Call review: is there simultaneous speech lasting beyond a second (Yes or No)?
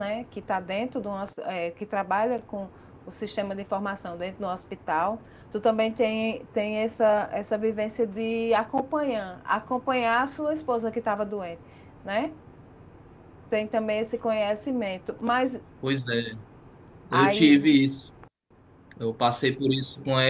No